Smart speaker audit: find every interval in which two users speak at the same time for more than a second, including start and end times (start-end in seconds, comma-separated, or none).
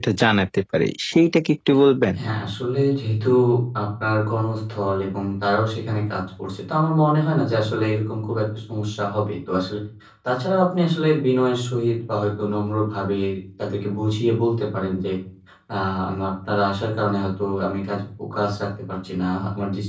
none